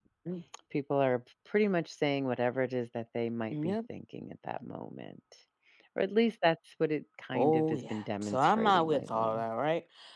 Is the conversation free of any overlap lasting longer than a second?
No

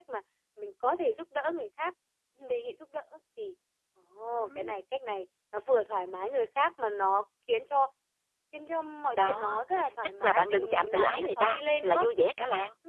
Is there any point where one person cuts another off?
Yes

